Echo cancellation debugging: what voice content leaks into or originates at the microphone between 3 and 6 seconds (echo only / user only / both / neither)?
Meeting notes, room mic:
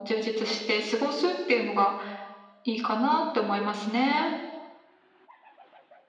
echo only